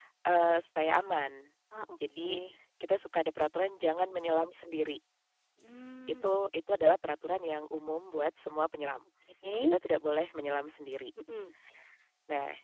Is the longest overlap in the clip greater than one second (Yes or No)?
No